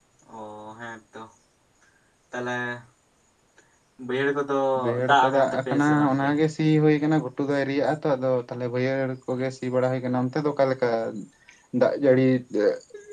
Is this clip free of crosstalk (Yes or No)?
No